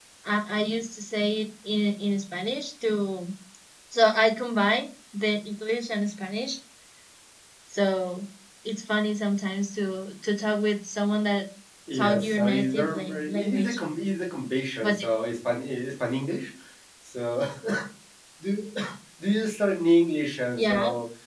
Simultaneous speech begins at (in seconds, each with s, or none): 11.9 s